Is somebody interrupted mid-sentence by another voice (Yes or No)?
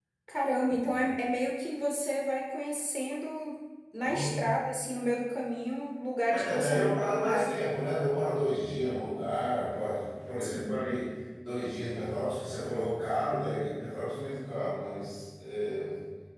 Yes